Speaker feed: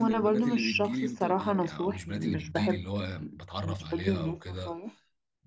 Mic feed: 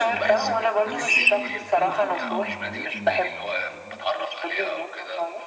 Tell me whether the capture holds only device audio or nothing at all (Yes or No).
No